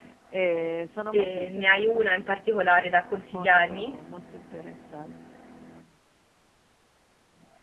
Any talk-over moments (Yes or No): Yes